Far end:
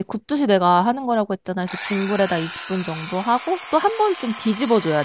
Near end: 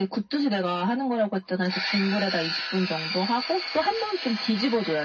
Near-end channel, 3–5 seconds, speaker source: echo only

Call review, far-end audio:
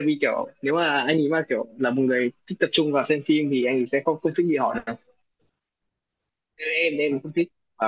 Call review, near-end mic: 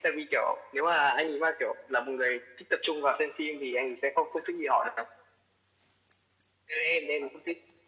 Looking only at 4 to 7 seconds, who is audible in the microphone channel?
echo only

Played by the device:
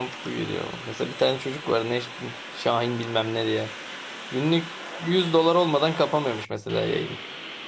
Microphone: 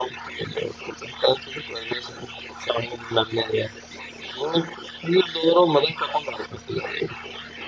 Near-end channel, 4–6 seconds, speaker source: echo only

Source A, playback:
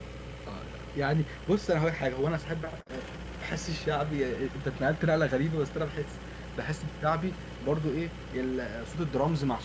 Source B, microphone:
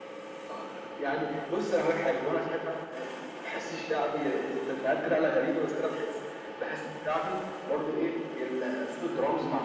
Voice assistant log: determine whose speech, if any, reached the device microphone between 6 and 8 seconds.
echo only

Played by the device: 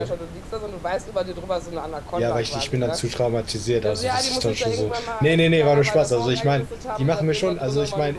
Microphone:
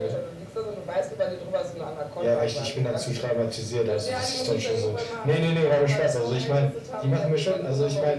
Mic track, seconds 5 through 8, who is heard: echo only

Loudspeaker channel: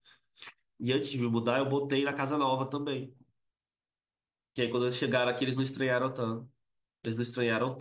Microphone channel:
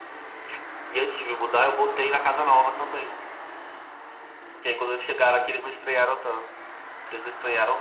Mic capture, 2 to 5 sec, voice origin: echo only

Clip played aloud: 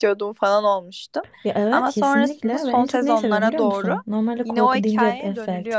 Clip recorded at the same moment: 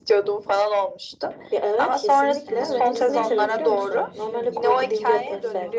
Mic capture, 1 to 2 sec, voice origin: echo only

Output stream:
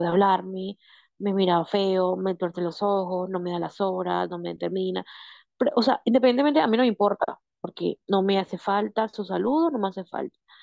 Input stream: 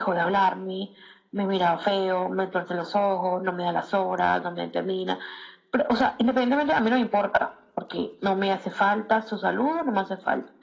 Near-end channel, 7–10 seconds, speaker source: echo only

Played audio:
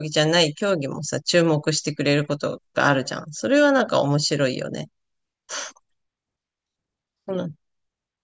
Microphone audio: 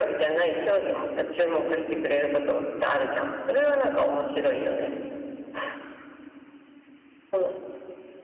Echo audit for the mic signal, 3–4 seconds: echo only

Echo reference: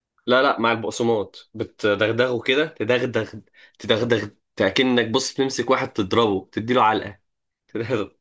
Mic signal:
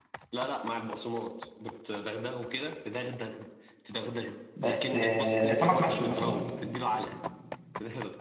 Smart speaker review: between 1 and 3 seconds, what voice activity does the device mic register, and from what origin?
echo only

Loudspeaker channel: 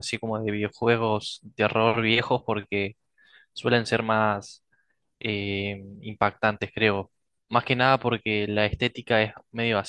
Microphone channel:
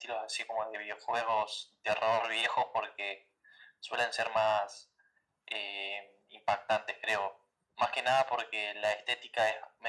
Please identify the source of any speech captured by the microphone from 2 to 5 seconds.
echo only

